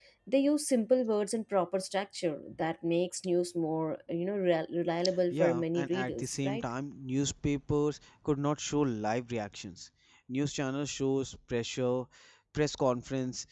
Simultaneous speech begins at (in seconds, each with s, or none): 5.3 s